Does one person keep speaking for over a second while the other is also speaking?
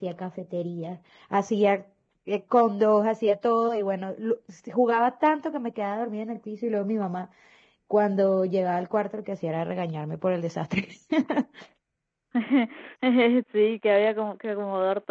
No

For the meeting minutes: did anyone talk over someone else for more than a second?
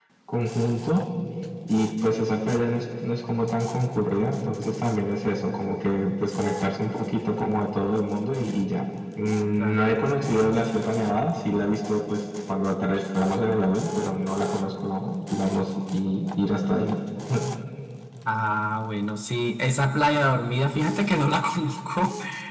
No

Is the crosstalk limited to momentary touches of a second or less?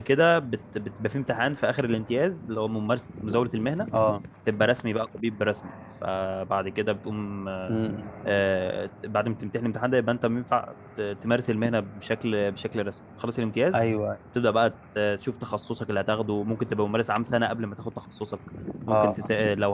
Yes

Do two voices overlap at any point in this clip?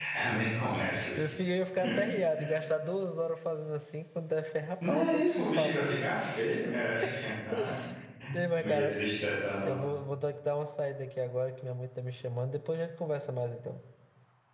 Yes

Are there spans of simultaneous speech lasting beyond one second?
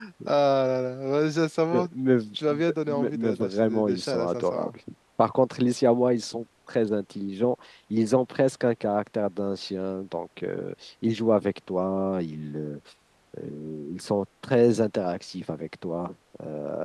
Yes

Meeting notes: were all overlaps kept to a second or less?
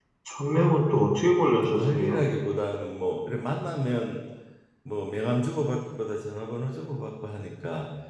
Yes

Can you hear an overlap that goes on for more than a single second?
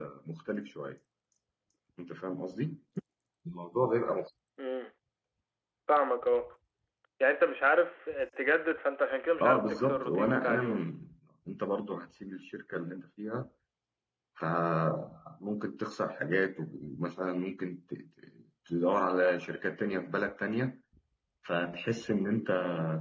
Yes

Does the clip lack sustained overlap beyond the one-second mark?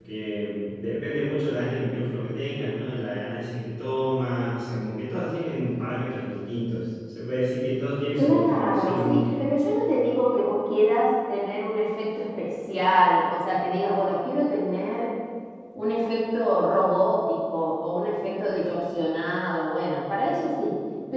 No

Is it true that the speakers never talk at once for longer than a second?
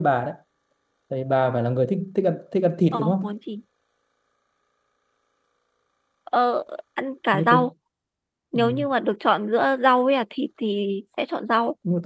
Yes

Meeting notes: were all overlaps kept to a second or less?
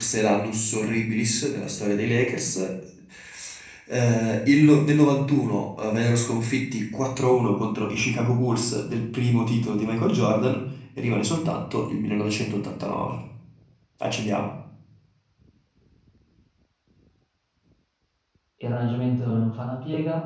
Yes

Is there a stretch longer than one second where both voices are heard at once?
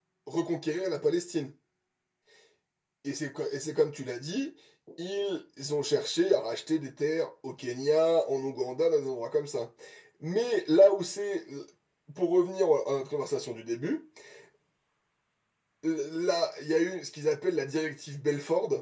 No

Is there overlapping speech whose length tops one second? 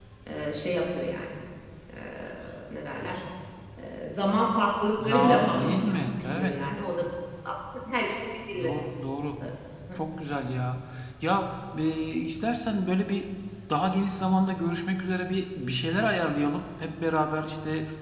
Yes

